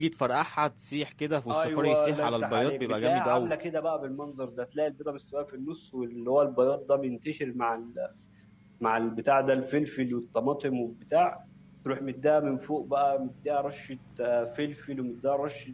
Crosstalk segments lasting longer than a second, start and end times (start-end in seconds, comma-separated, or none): 1.5-3.5